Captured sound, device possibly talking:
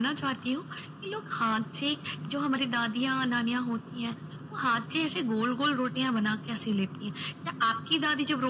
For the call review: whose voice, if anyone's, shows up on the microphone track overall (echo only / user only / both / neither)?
echo only